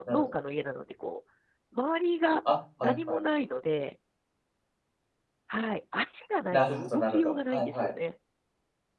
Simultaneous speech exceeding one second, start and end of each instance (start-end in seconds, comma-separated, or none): 6.5-7.9